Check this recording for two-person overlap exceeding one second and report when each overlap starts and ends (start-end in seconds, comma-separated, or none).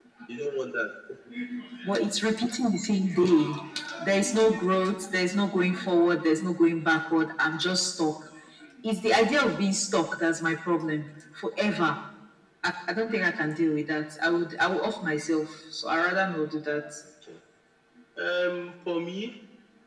none